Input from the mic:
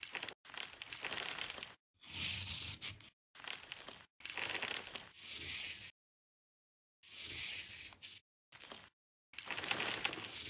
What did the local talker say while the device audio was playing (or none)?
none